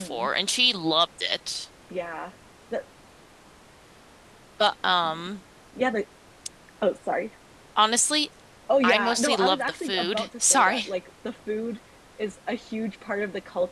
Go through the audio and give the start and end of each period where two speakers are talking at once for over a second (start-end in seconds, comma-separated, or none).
8.8-10.9